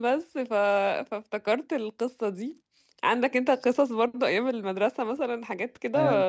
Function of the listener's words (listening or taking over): taking over